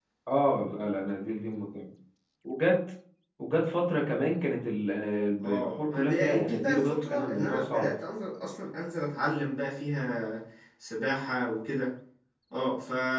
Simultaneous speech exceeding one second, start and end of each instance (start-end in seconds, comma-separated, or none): 5.4-7.9